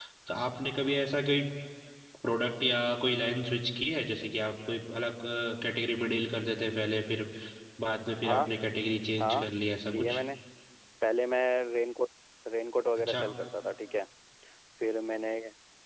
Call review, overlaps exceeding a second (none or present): none